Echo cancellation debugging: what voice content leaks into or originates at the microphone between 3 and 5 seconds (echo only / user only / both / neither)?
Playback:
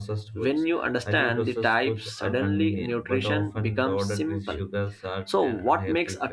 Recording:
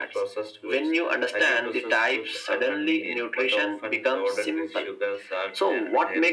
echo only